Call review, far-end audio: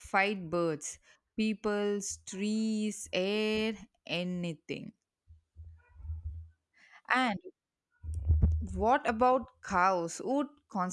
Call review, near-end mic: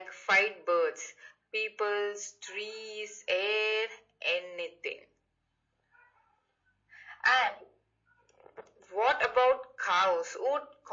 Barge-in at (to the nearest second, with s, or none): none